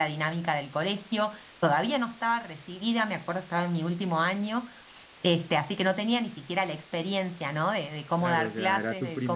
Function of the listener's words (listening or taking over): taking over